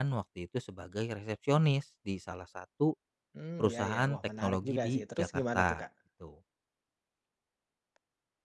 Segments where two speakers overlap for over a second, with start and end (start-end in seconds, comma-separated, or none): 3.6-5.8